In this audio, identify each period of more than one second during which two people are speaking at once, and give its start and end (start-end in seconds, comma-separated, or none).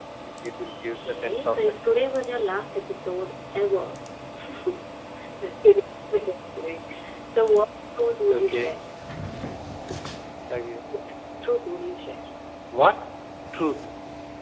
0.9-2.2